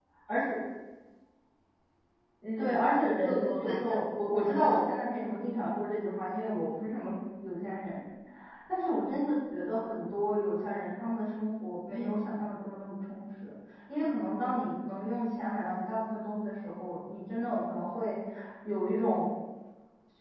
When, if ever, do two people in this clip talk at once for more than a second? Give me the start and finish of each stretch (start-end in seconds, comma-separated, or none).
2.6-4.0